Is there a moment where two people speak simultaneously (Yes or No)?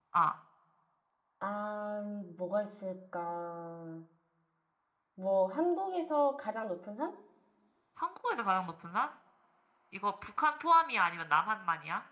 No